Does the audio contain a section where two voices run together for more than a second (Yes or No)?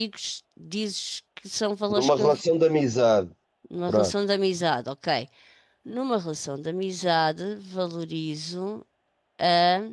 No